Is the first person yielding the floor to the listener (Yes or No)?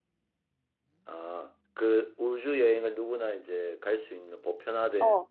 Yes